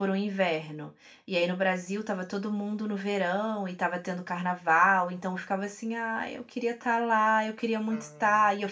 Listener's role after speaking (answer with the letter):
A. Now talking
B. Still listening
B